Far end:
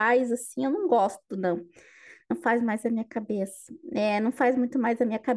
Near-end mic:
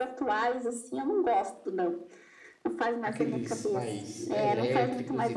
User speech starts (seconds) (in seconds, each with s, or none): 3.0 s